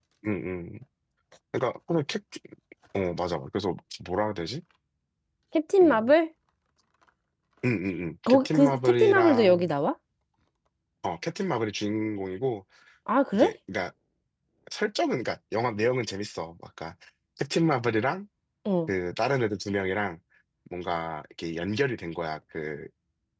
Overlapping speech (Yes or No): Yes